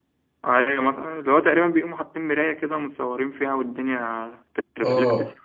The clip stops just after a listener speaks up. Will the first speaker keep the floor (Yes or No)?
No